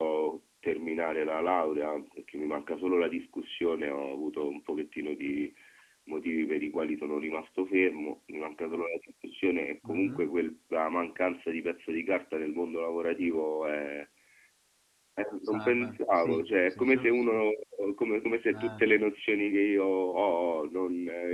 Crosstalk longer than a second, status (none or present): present